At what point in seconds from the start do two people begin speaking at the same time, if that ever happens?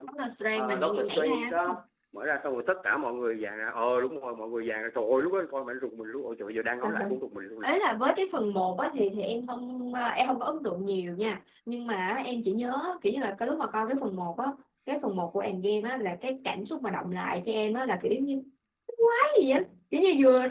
0.6 s

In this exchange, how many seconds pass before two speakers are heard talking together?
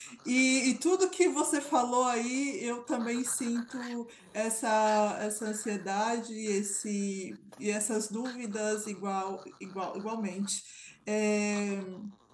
none

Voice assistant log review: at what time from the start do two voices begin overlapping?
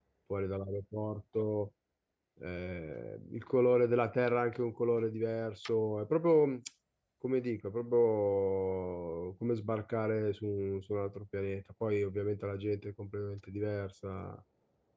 none

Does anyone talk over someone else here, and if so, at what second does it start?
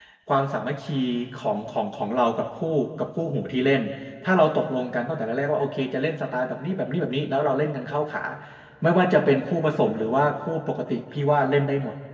none

